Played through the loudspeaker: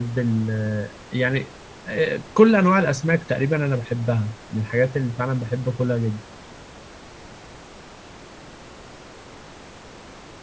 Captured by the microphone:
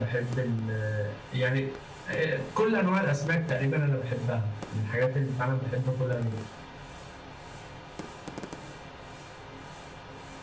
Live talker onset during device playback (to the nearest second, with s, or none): none